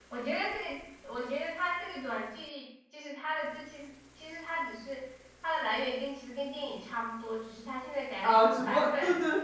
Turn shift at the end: Yes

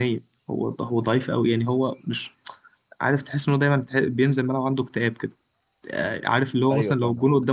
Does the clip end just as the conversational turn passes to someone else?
No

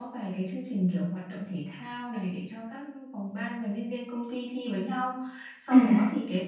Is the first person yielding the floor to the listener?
No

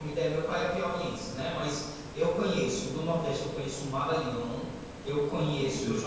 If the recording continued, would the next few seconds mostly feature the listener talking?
No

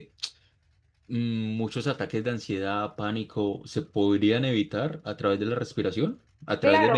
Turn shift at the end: Yes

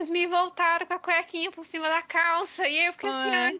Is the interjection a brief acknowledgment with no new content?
Yes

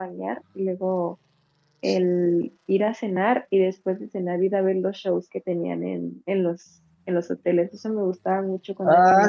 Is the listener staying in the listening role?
No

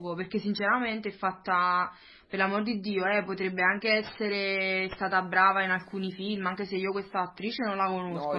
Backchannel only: No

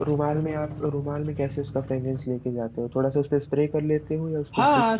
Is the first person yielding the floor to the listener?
Yes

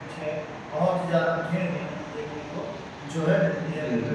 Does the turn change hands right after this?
Yes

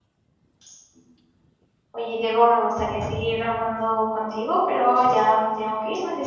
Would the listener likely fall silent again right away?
Yes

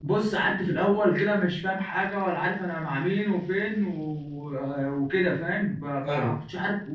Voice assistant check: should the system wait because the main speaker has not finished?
Yes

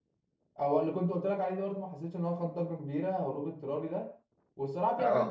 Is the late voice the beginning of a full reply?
No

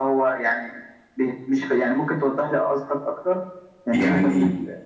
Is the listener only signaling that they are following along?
No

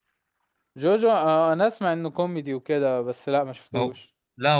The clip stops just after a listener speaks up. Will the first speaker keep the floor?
No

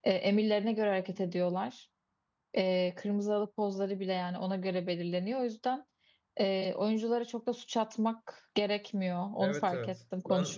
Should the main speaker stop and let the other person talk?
Yes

